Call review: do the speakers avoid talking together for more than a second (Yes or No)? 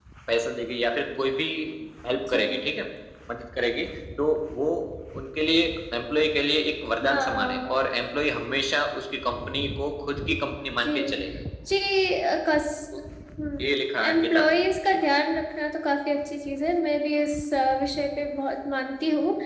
No